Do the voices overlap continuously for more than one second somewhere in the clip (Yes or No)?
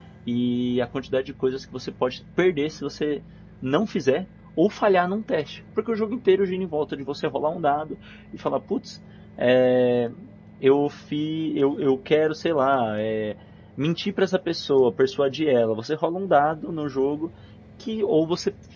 No